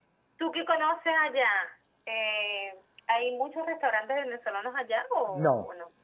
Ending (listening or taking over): taking over